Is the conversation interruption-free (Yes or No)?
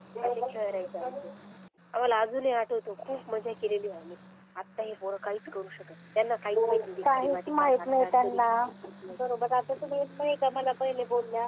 No